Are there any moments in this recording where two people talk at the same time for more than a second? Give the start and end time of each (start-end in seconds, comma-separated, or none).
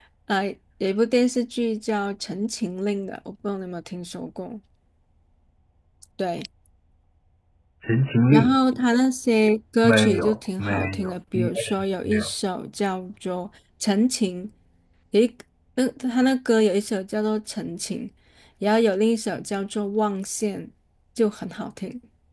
9.8-11.5